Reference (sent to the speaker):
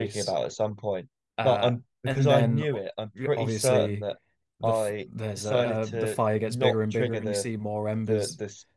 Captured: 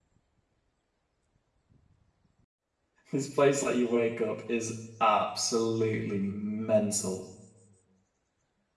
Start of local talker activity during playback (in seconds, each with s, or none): 3.1 s